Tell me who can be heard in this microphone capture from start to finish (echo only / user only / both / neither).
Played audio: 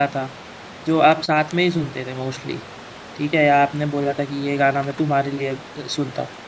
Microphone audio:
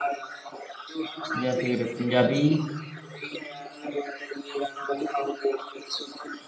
both